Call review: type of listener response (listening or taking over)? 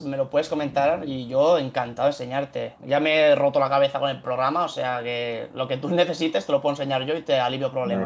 taking over